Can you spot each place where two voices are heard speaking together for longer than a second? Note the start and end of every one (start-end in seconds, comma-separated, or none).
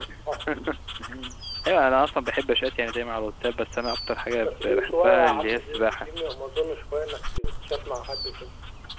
4.4-6.1